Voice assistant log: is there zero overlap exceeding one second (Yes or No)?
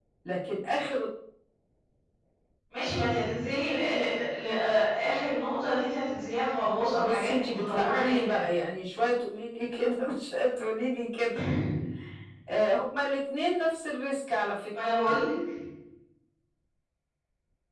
No